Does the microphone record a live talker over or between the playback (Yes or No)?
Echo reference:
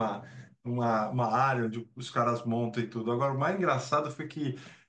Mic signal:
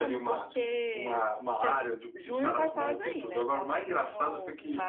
Yes